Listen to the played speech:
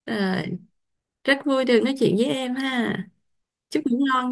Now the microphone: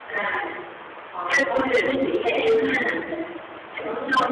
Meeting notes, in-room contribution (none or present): present